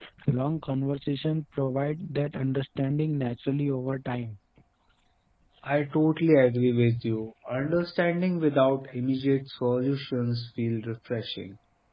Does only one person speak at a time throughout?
Yes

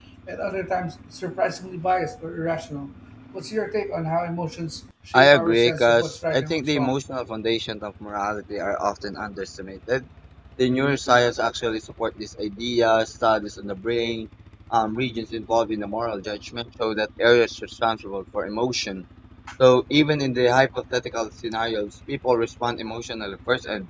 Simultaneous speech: Yes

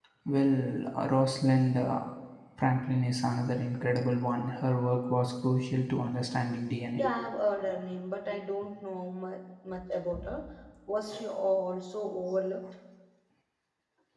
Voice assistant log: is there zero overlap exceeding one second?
Yes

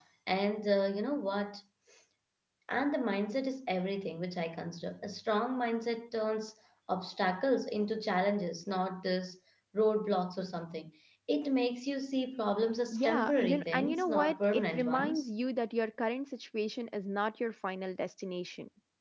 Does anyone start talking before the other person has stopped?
Yes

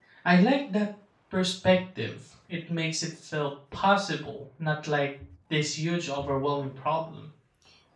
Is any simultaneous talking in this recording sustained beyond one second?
No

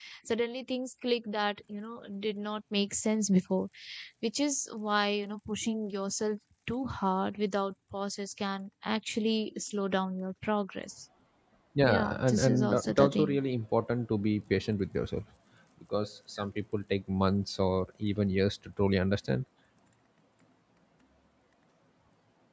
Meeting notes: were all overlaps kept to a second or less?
No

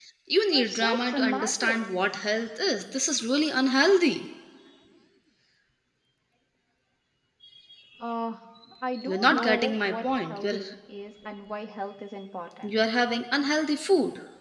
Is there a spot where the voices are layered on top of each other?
Yes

